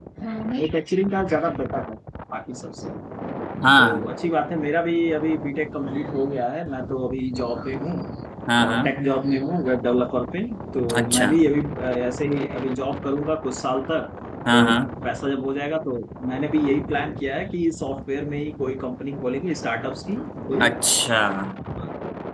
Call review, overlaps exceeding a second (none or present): none